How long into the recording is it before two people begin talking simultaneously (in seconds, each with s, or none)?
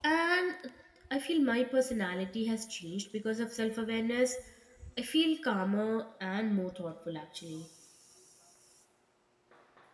none